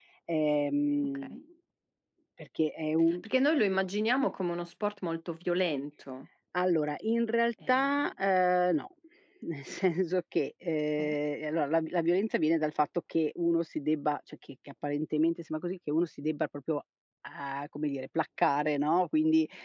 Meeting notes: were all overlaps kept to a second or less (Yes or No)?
Yes